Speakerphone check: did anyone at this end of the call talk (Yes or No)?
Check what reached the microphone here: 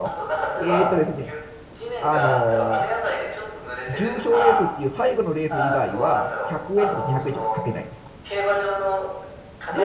Yes